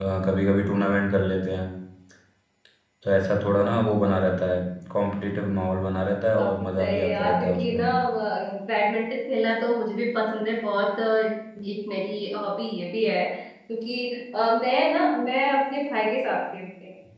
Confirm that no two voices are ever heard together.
No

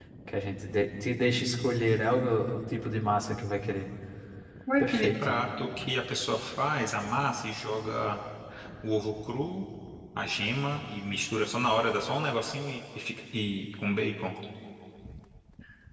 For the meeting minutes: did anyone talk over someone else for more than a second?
No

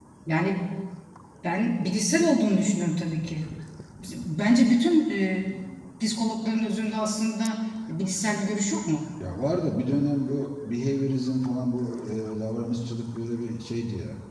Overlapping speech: No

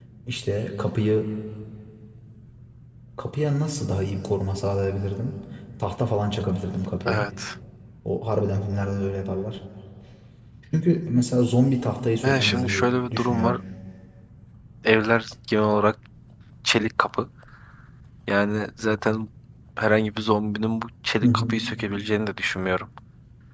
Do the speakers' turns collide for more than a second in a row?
Yes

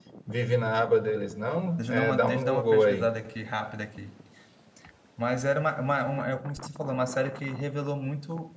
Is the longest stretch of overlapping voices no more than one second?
No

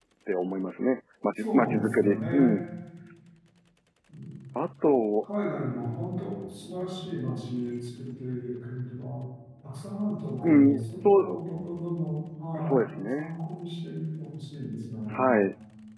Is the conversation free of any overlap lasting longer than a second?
No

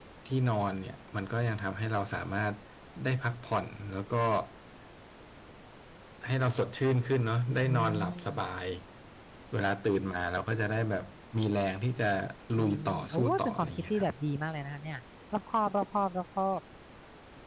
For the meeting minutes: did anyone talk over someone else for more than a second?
Yes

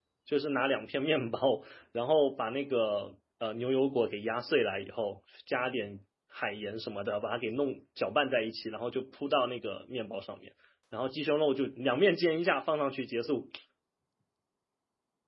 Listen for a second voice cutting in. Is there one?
No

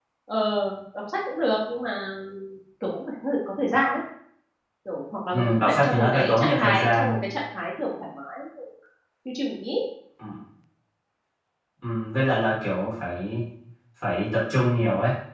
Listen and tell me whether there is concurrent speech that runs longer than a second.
Yes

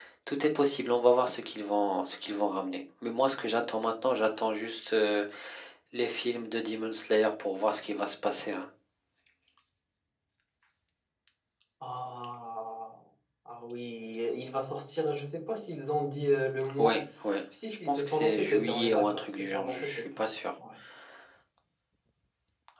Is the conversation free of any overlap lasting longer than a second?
No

